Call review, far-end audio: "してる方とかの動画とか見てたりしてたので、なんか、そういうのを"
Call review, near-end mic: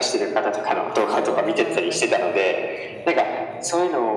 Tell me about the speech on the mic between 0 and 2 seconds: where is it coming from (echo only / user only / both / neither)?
both